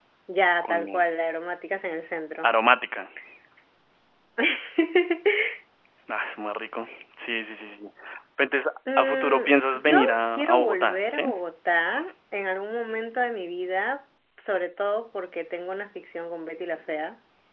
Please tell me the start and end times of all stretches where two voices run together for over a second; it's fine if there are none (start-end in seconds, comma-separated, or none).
9.0-11.2